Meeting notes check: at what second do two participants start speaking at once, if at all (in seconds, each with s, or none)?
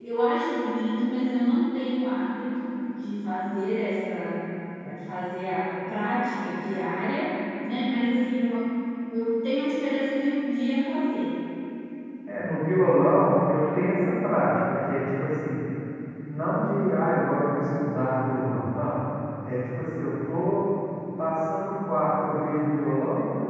none